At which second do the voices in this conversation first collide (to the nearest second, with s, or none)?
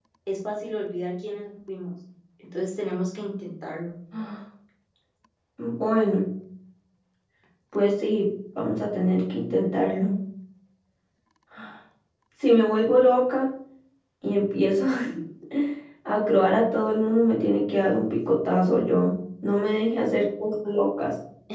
none